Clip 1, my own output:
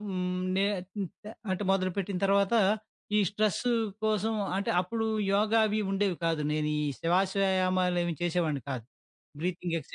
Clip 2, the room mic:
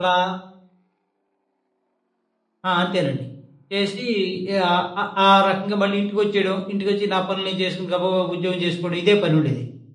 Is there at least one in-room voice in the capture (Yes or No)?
Yes